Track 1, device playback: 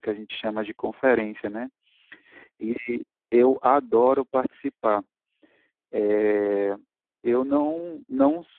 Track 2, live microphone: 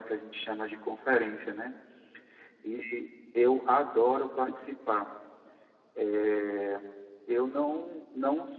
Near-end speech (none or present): none